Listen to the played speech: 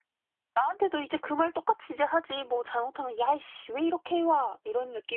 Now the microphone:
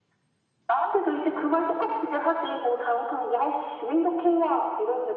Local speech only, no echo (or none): none